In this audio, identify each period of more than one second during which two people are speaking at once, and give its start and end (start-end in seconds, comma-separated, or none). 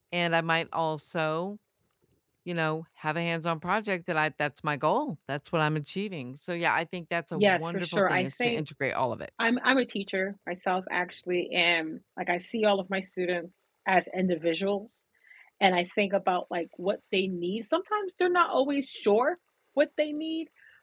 7.3-8.6